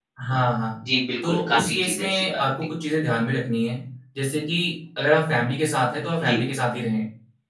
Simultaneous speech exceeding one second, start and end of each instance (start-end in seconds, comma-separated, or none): 1.2-2.7